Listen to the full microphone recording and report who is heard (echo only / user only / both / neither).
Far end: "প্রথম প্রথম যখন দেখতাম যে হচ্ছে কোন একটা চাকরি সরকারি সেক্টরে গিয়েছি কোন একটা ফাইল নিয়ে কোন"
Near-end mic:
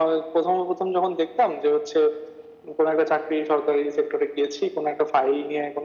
echo only